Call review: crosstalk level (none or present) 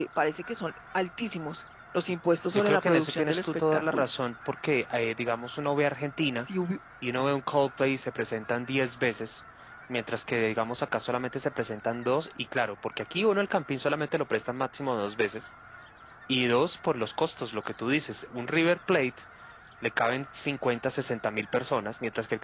present